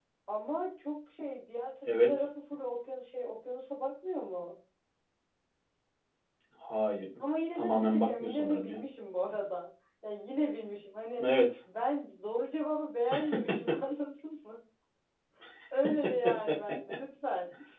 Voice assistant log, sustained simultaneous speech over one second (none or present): present